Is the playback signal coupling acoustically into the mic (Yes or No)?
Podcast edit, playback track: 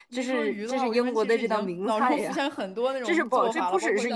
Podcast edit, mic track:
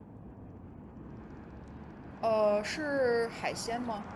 No